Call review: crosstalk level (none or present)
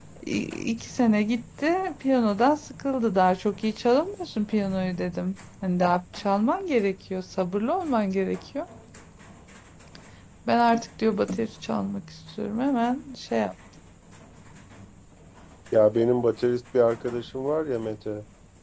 none